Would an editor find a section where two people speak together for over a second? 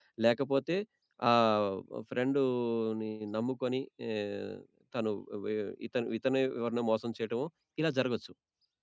No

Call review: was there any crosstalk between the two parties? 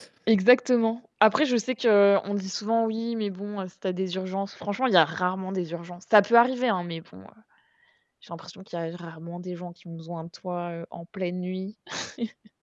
No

